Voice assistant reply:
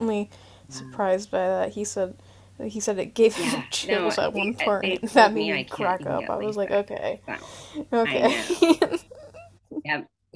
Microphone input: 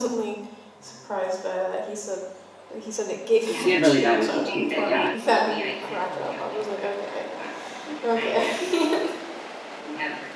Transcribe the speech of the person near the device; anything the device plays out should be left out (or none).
he had really bad vision too, but yeah.